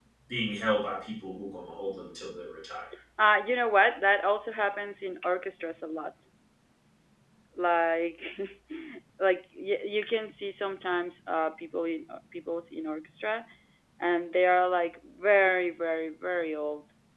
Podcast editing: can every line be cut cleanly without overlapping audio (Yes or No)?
Yes